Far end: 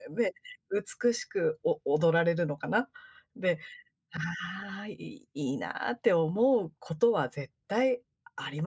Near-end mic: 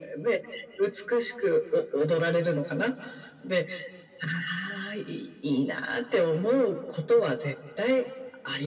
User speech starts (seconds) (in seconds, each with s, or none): none